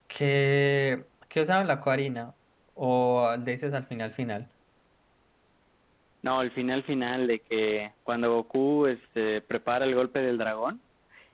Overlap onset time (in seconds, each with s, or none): none